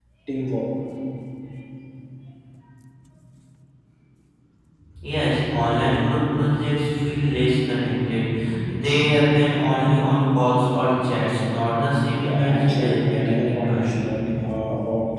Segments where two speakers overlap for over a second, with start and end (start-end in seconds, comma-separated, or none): 12.2-14.1